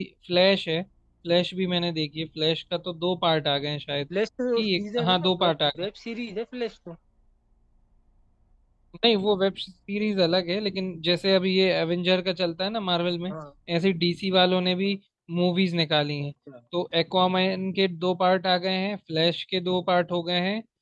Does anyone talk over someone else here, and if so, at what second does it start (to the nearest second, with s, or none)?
5 s